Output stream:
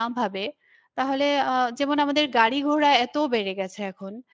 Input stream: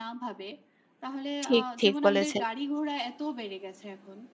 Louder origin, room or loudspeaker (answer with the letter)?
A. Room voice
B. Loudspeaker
A